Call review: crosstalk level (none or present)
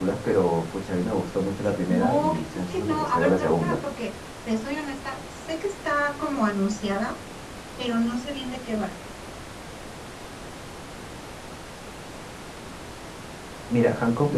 present